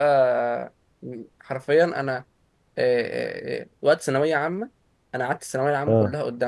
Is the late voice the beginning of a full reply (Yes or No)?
No